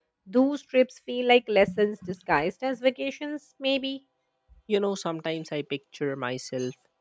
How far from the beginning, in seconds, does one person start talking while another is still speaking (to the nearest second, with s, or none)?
none